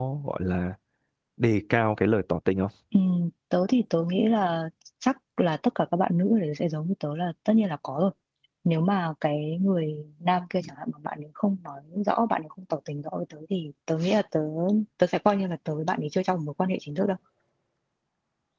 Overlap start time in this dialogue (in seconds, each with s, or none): none